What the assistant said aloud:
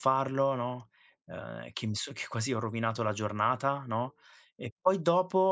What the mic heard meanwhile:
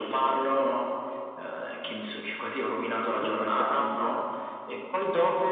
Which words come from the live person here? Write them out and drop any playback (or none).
sto sbagliando, non"